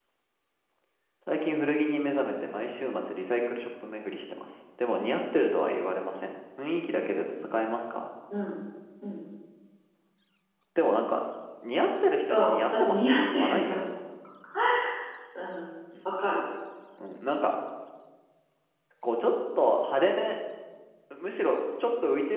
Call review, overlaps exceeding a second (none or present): present